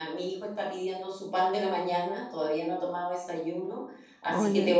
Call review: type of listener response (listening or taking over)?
listening